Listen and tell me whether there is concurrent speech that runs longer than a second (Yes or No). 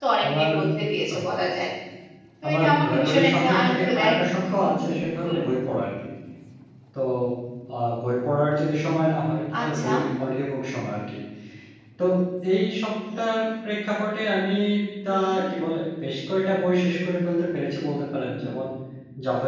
Yes